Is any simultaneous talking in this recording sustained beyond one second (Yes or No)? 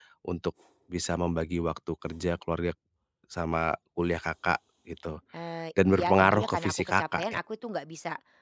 Yes